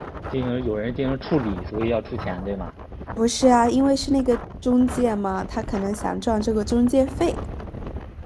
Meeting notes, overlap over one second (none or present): none